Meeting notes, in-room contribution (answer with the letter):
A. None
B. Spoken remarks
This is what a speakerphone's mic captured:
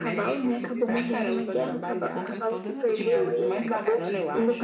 B